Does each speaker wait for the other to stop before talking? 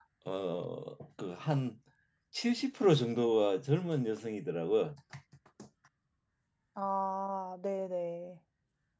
Yes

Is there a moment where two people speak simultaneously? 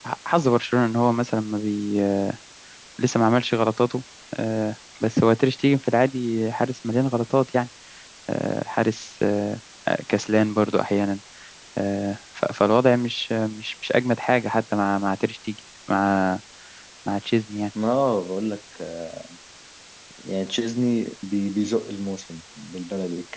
No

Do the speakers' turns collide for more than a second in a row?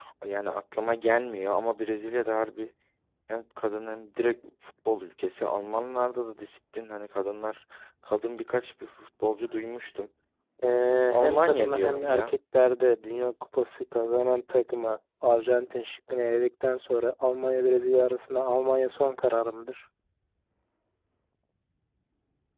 Yes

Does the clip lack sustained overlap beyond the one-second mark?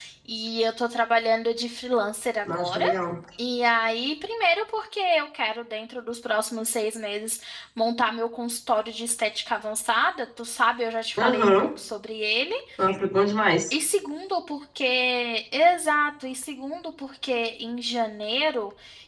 Yes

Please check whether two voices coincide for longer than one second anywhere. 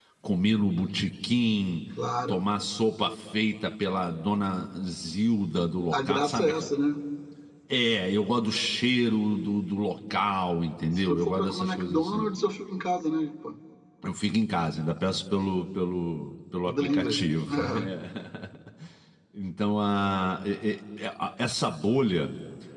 Yes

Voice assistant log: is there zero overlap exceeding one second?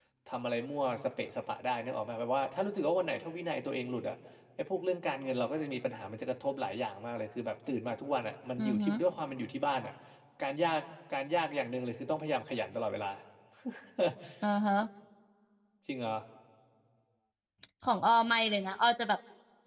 Yes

